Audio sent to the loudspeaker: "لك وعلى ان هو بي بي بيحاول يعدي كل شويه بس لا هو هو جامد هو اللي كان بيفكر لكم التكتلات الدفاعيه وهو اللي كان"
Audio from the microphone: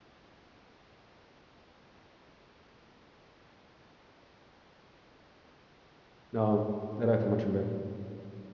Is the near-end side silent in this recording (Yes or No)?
No